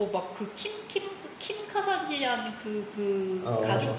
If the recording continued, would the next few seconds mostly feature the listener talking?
No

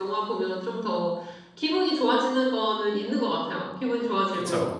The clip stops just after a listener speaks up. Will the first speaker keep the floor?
Yes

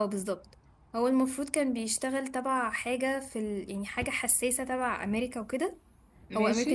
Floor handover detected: No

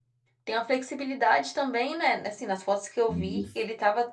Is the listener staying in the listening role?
Yes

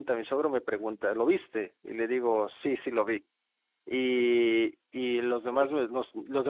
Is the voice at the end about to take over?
No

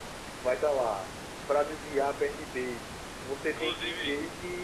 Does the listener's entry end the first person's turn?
No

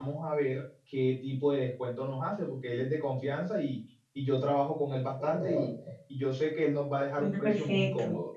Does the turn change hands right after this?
No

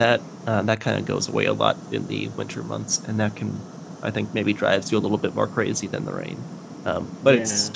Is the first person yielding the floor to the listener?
No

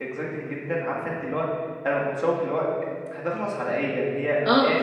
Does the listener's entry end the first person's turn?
Yes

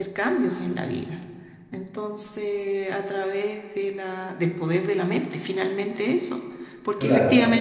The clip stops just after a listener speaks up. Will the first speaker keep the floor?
Yes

